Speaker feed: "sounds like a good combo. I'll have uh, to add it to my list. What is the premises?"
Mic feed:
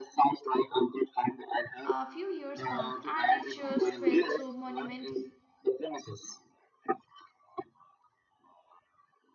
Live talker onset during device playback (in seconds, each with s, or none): 1.8 s